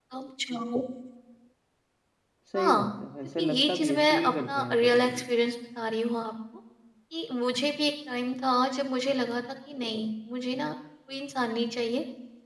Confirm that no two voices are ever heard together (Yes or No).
No